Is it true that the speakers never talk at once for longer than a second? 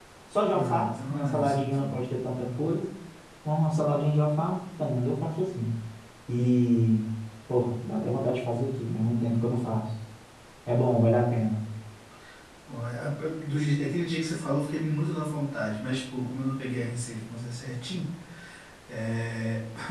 No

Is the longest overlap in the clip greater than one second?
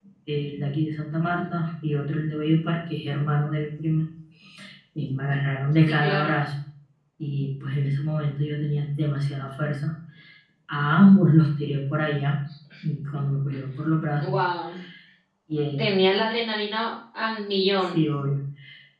No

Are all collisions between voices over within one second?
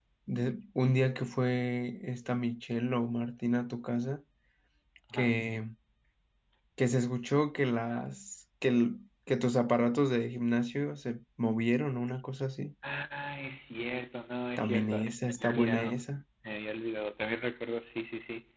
No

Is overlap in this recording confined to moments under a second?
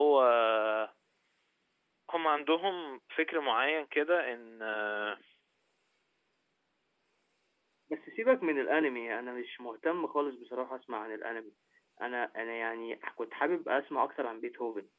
Yes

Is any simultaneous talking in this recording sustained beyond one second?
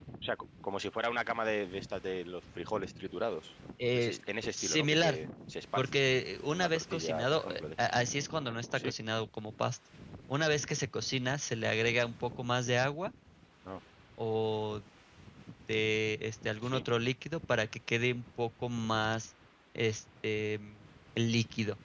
Yes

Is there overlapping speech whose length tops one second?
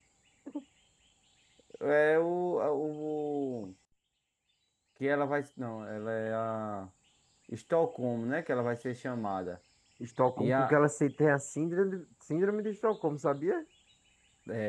No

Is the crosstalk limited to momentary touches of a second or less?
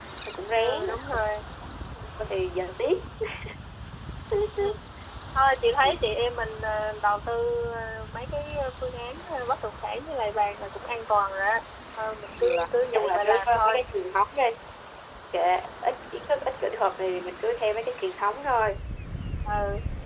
No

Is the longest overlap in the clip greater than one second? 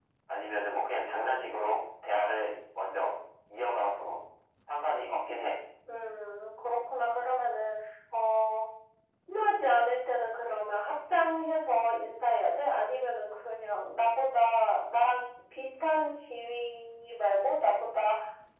No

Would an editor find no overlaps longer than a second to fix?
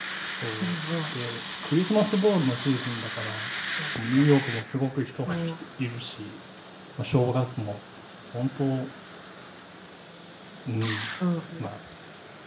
Yes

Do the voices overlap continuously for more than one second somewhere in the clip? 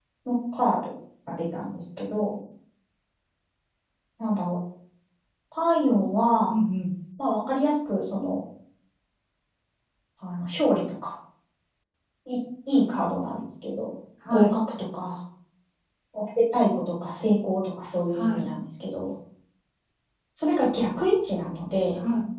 No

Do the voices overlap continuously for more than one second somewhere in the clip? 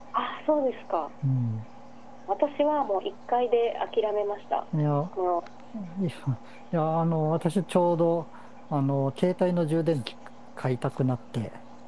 No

